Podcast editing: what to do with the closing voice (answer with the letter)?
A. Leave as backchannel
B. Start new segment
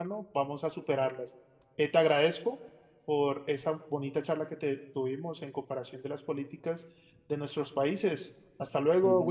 B